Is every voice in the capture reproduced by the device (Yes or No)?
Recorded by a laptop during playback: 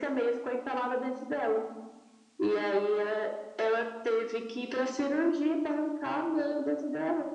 Yes